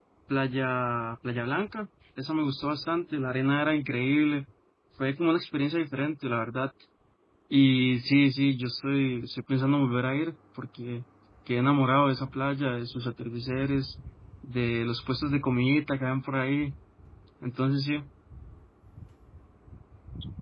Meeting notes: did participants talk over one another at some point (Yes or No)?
No